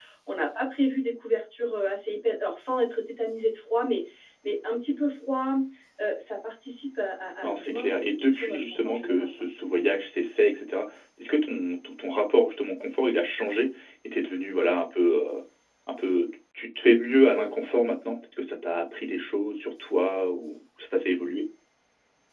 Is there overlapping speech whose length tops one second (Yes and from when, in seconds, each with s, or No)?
Yes, from 7.4 s